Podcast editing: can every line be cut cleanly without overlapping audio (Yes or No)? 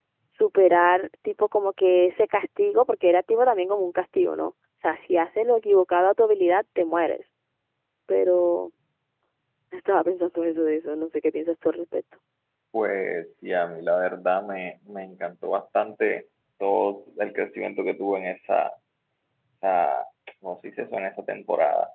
Yes